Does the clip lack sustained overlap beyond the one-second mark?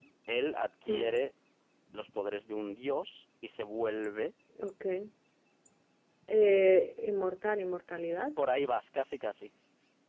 Yes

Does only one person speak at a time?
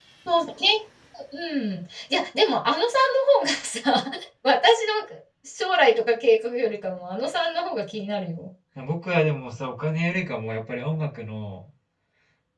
Yes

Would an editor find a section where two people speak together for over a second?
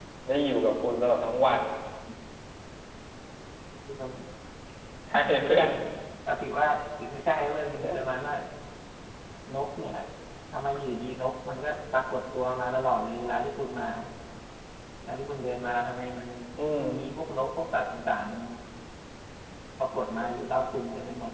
No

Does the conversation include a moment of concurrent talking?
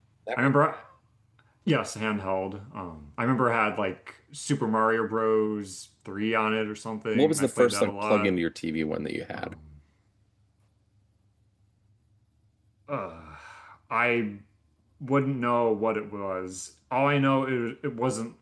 Yes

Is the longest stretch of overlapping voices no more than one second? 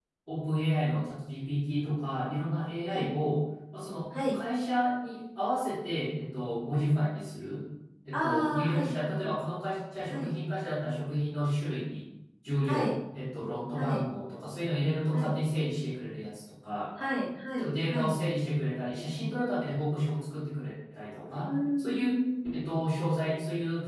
No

